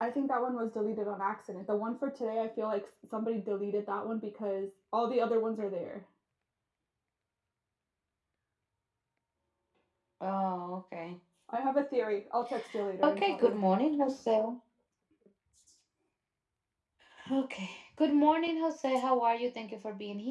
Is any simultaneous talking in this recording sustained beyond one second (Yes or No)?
No